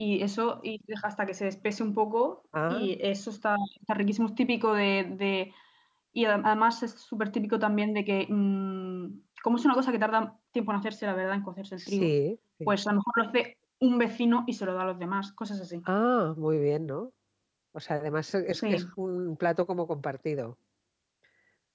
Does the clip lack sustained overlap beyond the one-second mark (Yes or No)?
Yes